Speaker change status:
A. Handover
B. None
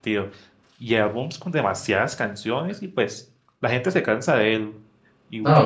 A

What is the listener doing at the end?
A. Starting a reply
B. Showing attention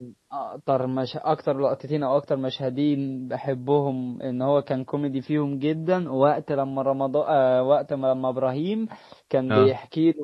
B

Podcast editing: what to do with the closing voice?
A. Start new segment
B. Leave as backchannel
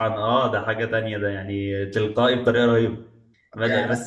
B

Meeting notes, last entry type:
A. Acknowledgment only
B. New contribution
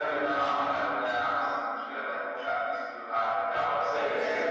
B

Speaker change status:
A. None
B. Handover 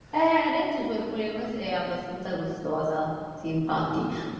A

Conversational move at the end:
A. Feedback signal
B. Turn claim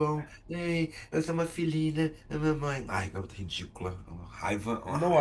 B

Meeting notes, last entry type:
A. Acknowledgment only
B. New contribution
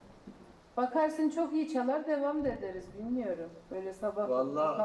A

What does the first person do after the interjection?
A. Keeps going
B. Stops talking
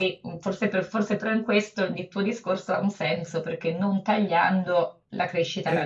B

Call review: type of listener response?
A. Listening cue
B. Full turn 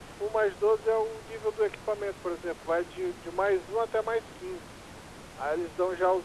A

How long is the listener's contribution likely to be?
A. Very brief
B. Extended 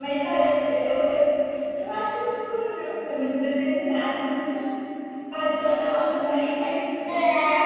B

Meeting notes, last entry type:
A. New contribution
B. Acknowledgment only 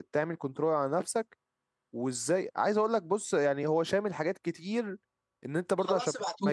B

